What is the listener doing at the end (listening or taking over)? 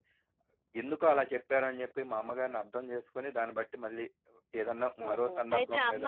taking over